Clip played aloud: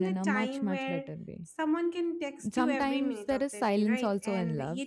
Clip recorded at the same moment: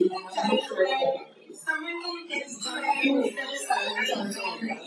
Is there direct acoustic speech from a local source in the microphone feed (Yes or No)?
No